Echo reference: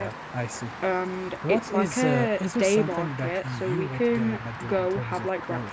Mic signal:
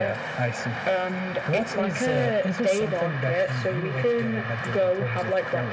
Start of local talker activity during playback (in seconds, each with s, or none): none